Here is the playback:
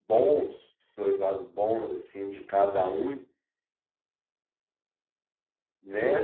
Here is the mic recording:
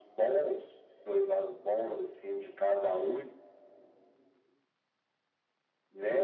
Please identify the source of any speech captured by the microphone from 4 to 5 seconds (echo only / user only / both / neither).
neither